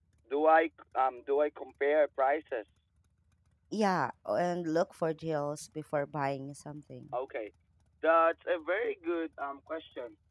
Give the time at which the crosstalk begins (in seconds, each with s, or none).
none